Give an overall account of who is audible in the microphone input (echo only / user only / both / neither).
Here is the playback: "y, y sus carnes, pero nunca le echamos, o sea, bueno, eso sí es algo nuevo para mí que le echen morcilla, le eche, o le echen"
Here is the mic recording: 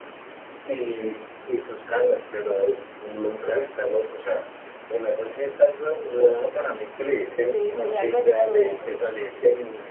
both